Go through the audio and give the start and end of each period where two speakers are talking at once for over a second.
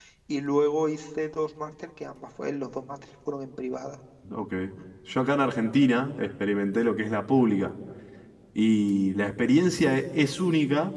none

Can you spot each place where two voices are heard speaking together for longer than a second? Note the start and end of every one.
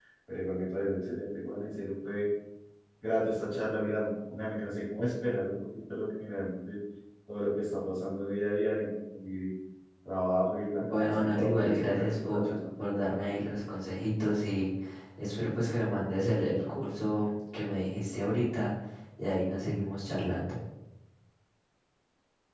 10.8-12.5

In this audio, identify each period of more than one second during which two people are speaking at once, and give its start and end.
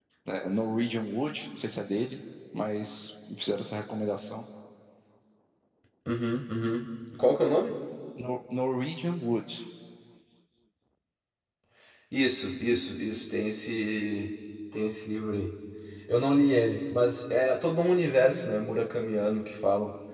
none

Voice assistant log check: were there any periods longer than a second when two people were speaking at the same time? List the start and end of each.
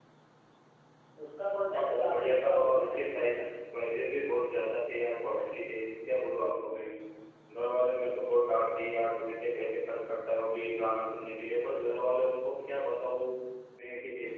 1.7-3.4

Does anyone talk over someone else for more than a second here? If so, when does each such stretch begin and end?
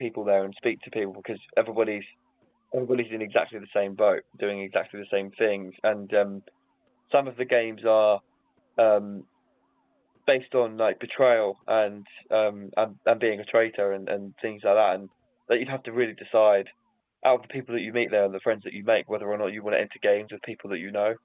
none

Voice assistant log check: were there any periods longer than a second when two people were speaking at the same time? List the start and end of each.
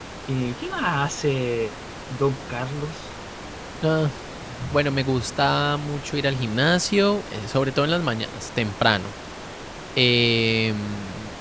none

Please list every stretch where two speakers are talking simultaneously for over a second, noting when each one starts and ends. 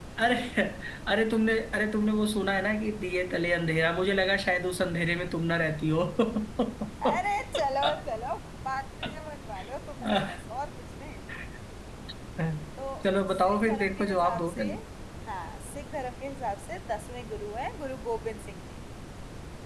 13.3-14.7

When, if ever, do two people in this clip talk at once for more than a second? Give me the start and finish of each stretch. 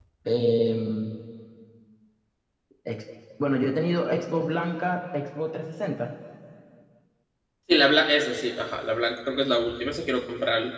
none

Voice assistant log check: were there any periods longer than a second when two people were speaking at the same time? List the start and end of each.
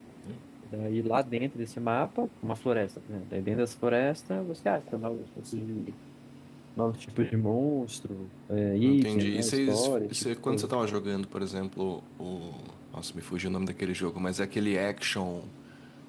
8.8-10.7

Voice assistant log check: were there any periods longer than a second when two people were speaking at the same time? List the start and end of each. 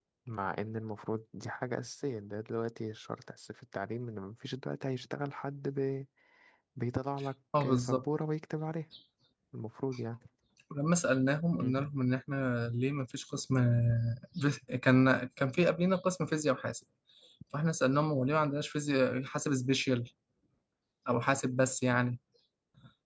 none

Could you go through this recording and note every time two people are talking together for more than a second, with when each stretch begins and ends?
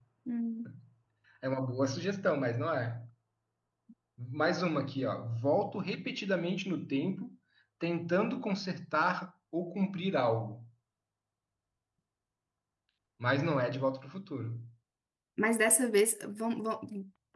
none

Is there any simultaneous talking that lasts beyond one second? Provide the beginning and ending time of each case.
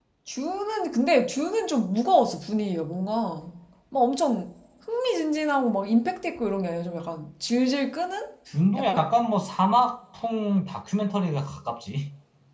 none

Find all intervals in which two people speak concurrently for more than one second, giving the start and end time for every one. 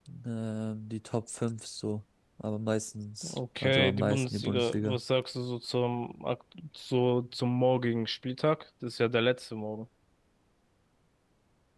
3.2-5.0

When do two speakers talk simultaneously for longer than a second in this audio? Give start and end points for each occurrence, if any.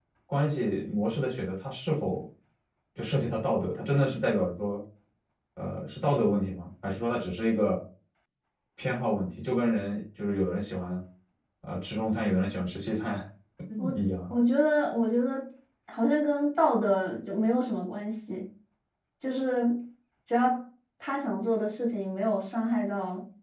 none

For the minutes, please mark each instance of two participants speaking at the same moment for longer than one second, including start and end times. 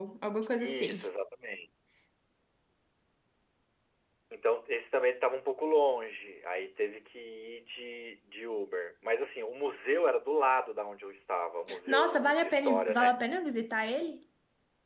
11.9-13.2

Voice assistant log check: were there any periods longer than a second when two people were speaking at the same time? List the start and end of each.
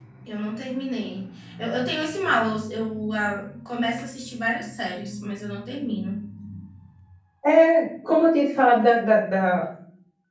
none

